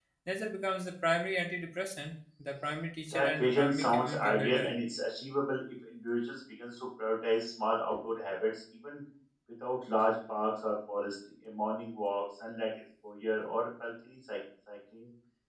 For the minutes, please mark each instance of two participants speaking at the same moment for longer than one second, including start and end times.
3.1-4.7

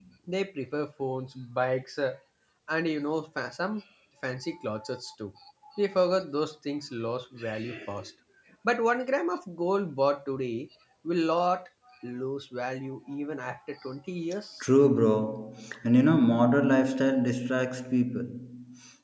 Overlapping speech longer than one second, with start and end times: none

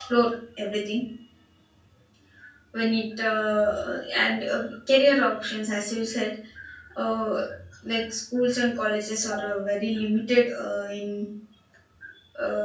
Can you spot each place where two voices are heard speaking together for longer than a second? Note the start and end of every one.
none

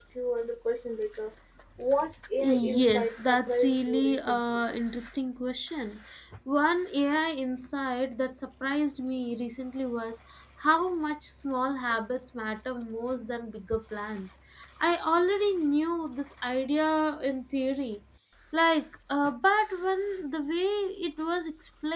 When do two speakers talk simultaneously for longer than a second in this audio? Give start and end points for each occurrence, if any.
2.4-4.6

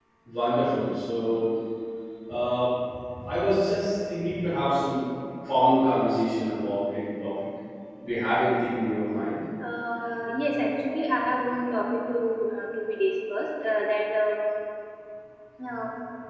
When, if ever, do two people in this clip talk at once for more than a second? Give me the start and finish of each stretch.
none

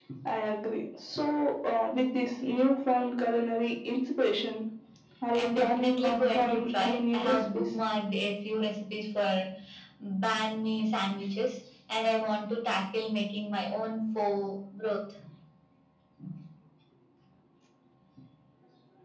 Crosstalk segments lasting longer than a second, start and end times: 5.4-7.8

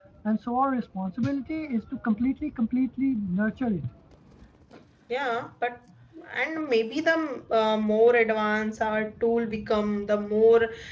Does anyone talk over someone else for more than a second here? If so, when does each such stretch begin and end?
none

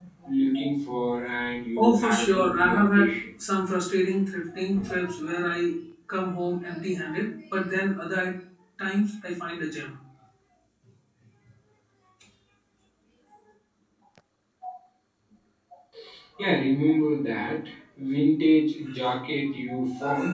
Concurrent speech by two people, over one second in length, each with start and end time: 1.8-3.1

